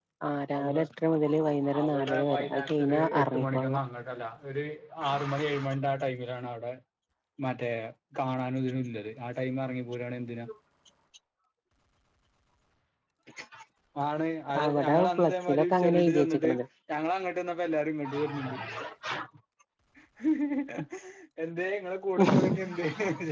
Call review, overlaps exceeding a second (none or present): present